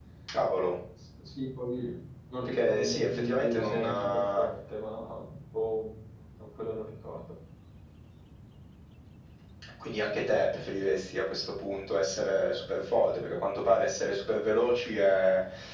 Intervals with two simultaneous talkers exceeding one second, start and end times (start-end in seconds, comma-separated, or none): 2.4-4.4